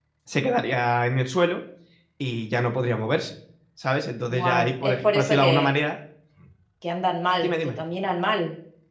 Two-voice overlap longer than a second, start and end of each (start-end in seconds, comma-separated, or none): 4.3-5.7